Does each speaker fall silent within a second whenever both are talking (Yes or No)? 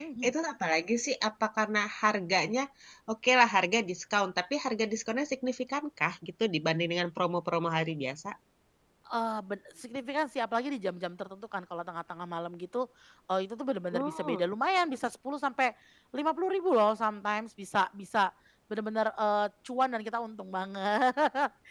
Yes